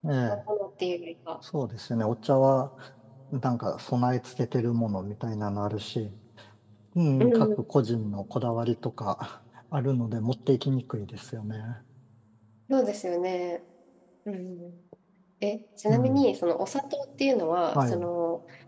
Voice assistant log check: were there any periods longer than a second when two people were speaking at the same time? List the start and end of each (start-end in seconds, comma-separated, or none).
none